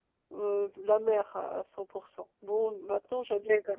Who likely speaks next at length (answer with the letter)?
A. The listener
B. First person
B